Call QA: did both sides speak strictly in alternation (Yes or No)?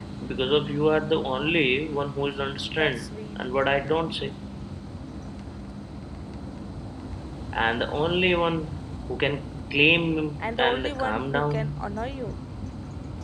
No